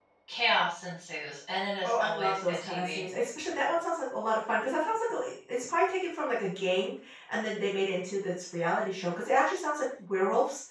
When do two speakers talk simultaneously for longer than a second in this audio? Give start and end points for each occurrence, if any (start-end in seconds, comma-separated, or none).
1.8-3.0